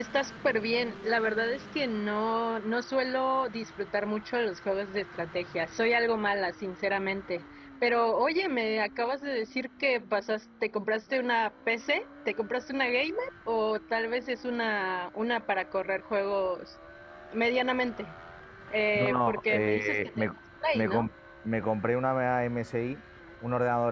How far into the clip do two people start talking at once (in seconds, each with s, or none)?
19.0 s